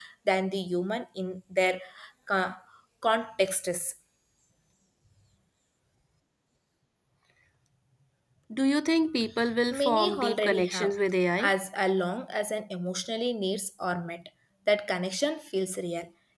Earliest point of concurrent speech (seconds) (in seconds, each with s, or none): 9.7 s